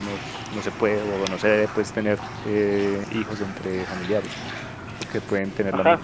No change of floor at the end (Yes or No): No